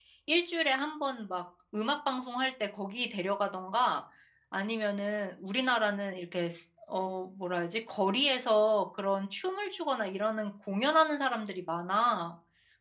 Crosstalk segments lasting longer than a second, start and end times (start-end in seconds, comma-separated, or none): none